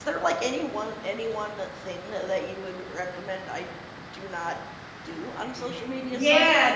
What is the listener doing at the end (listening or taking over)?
taking over